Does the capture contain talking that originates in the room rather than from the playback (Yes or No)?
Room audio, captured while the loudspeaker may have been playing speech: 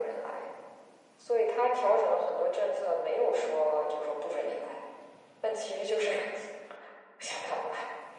No